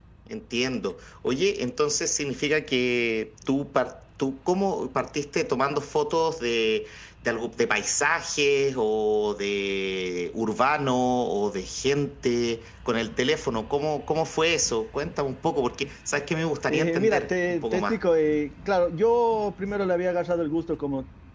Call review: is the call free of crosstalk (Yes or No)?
No